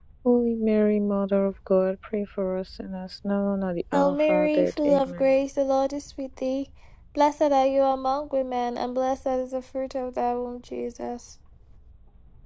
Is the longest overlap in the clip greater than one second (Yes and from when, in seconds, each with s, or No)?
Yes, from 3.9 s